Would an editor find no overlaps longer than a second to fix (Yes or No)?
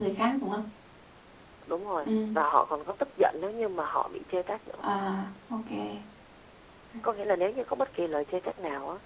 Yes